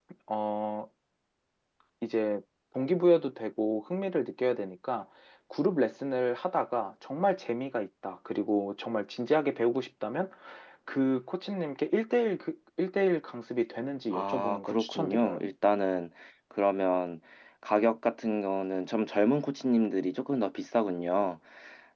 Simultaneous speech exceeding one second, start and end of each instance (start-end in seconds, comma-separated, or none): 14.1-15.4